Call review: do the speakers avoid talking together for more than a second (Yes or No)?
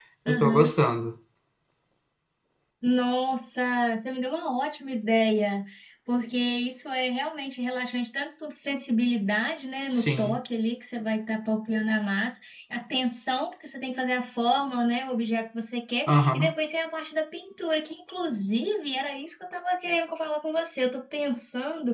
Yes